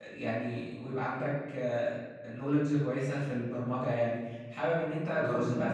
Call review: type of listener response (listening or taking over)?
listening